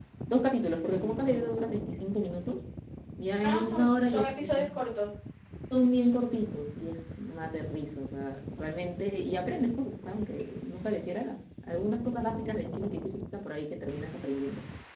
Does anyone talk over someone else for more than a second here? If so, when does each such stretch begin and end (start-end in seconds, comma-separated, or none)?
3.4-4.7